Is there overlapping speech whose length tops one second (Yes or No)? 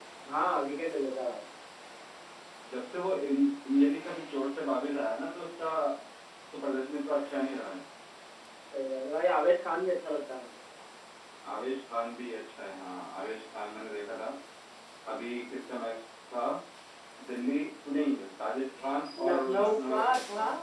Yes